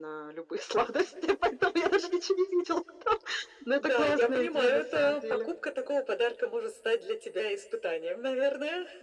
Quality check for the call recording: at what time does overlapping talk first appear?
3.8 s

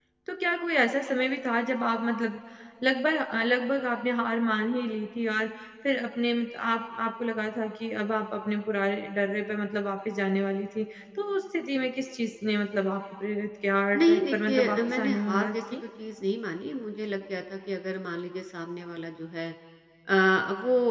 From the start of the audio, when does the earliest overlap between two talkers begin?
13.9 s

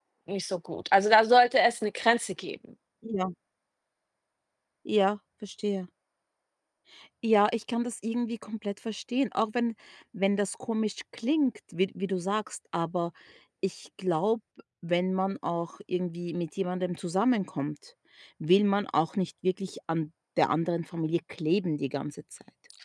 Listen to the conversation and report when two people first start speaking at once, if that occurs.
none

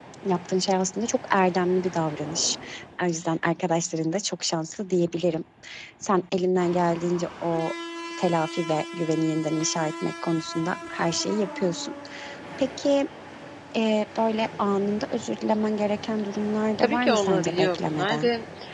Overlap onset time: 16.8 s

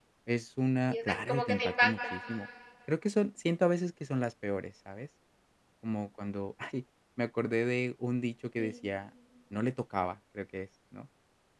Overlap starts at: 0.9 s

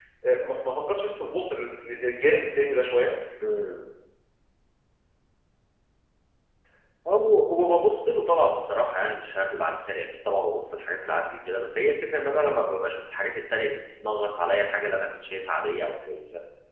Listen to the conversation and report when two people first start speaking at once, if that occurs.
none

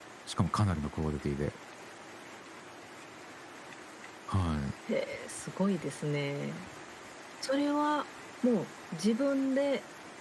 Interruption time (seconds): none

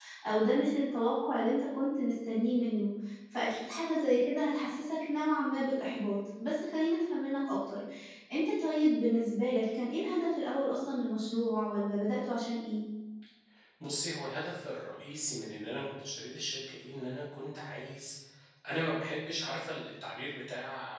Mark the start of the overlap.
none

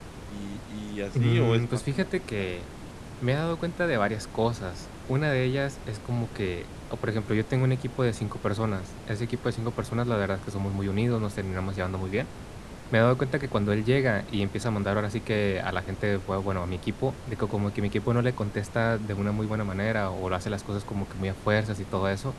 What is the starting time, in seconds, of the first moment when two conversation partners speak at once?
1.2 s

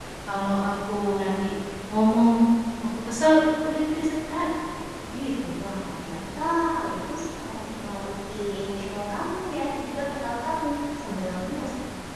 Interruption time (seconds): none

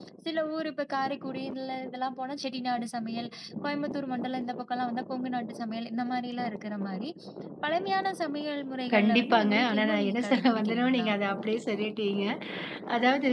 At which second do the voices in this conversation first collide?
8.9 s

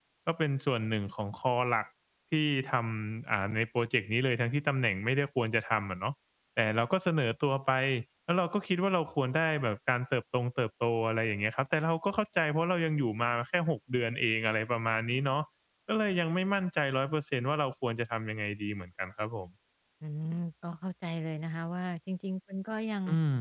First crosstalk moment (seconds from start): none

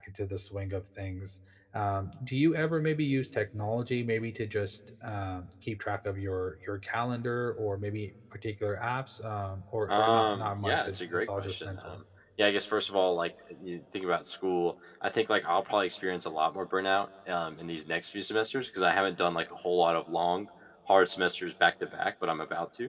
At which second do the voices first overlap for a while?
9.9 s

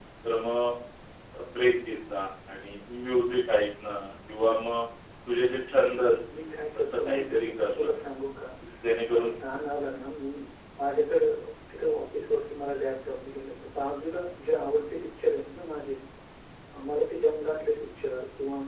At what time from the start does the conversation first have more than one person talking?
6.3 s

